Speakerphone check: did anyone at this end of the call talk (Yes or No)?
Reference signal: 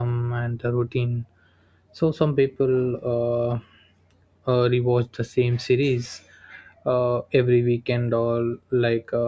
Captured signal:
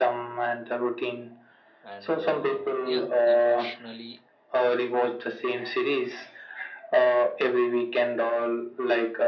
Yes